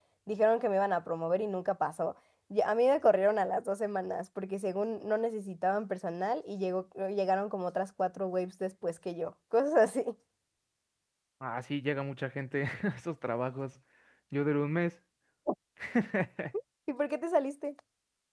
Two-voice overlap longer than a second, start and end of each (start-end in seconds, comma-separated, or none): none